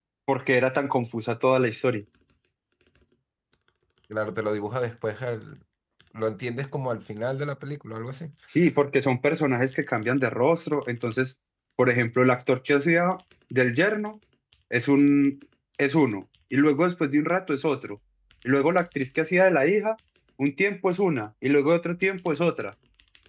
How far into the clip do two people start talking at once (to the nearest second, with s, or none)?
none